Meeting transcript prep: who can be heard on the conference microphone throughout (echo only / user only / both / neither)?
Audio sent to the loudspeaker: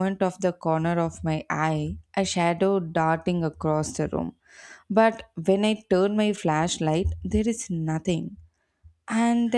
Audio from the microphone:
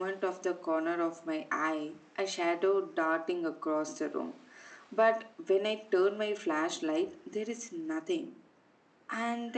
echo only